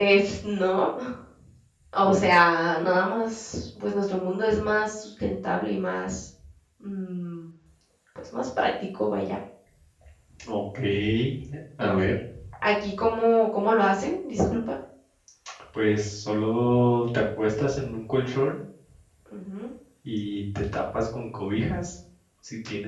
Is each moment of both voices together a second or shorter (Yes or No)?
Yes